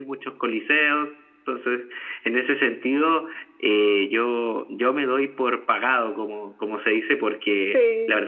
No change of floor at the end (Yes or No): Yes